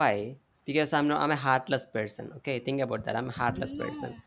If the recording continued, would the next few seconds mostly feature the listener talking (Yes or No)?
No